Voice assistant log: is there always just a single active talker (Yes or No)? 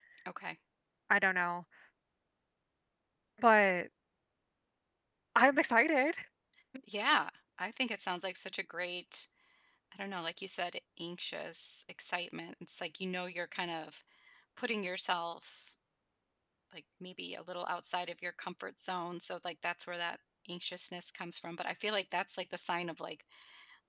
Yes